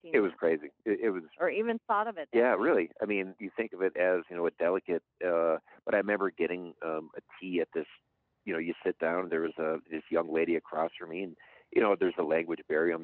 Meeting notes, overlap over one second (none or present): none